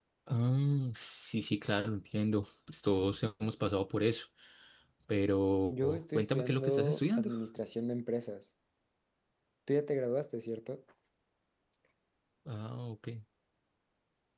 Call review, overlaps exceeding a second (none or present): present